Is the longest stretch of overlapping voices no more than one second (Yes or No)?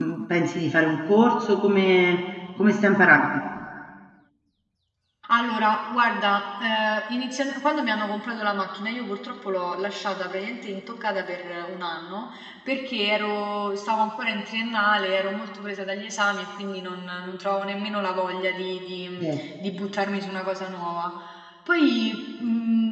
Yes